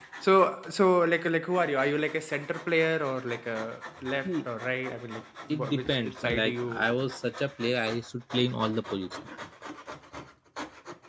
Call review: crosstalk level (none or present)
present